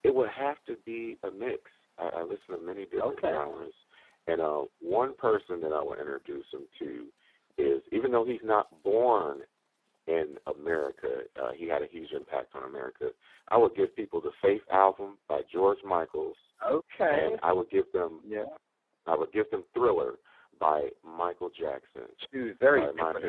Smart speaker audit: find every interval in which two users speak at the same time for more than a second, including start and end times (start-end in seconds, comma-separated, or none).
none